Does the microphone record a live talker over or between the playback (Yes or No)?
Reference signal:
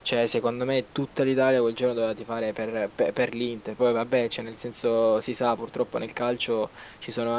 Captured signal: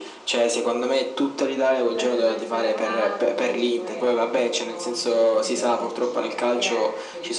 Yes